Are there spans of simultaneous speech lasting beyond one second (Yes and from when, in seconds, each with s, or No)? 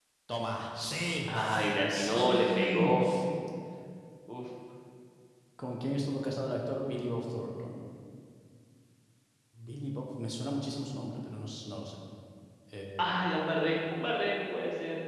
Yes, from 1.2 s